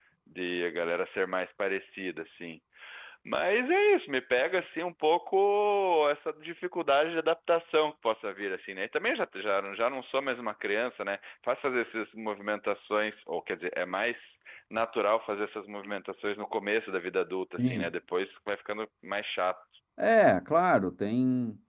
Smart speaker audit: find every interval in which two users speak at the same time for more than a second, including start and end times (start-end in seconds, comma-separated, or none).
none